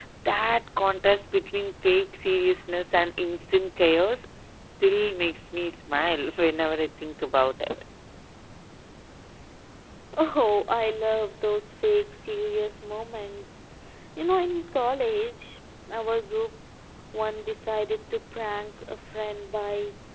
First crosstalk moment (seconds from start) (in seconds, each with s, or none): none